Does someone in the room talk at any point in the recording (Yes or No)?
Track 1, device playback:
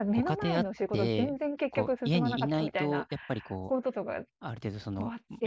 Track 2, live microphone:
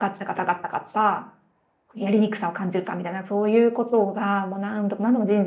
Yes